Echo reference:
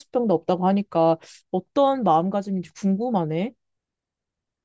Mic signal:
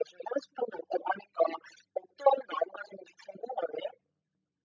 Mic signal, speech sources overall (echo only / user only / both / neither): echo only